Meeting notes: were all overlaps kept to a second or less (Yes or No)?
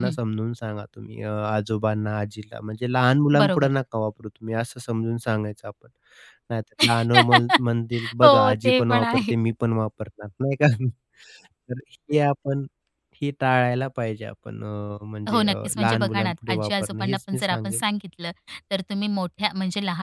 No